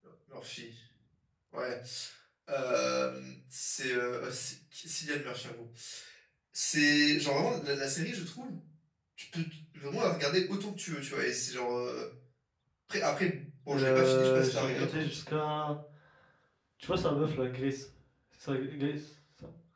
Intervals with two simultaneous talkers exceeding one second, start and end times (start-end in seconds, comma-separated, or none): 13.7-15.0